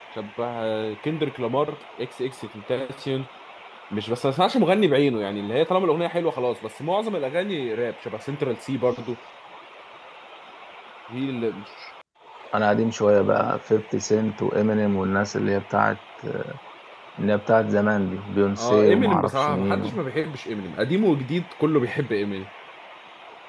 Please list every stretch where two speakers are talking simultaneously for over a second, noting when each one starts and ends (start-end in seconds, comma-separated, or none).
18.6-20.0